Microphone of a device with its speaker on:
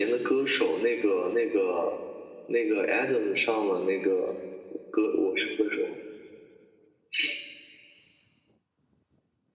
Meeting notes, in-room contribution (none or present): none